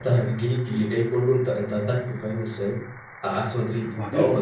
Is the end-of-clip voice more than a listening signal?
No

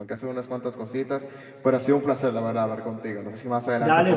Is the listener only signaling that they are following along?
No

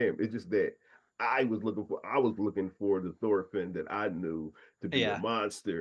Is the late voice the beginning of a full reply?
No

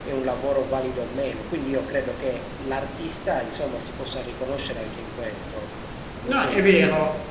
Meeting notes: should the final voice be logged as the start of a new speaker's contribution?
Yes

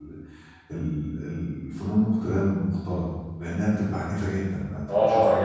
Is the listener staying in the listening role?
No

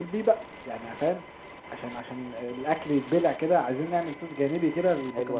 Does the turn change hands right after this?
Yes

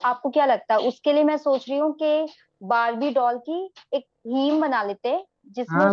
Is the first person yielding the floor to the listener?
Yes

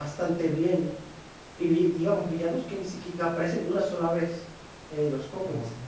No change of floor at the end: Yes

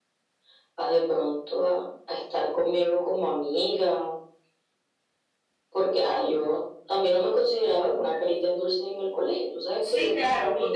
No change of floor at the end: No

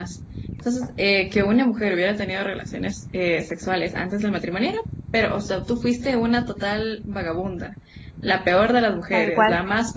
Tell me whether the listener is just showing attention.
Yes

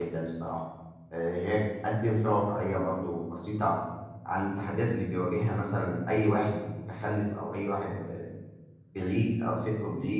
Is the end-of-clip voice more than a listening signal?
No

